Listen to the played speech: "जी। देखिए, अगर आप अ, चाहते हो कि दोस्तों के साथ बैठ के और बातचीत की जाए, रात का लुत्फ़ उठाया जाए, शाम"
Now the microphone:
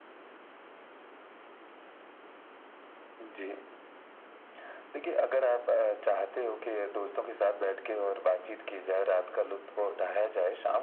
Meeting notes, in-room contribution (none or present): none